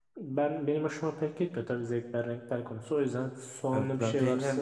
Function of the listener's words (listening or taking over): taking over